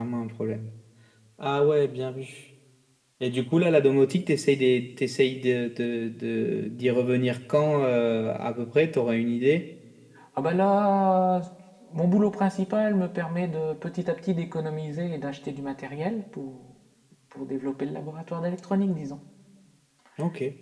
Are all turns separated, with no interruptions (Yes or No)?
Yes